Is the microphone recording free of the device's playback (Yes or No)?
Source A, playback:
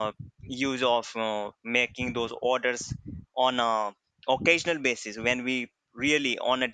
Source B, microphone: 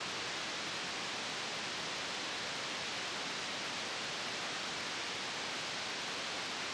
Yes